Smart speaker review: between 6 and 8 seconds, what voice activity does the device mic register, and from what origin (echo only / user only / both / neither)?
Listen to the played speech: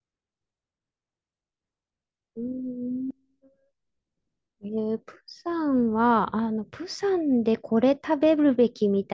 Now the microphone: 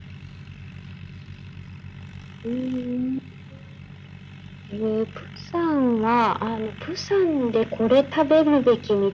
echo only